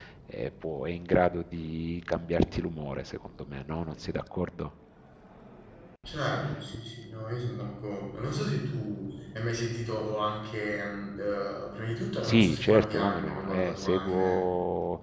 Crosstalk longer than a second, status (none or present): present